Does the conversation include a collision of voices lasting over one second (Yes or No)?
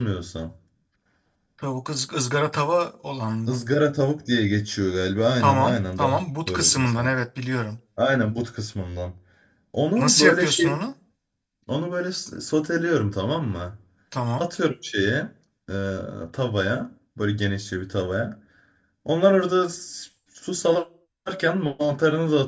Yes